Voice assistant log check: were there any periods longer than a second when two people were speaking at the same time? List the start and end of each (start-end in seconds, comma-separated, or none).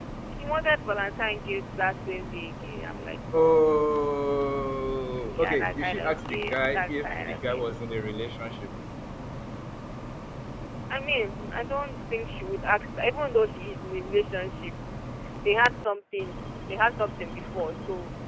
5.3-7.7